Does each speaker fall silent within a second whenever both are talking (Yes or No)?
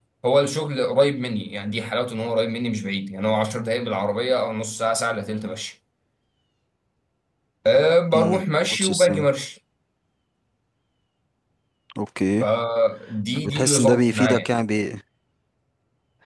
No